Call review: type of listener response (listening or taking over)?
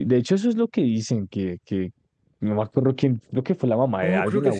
taking over